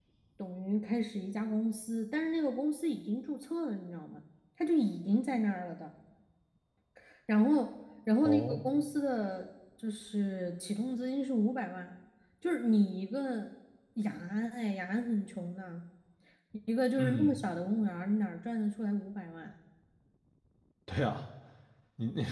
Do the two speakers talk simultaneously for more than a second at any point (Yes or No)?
No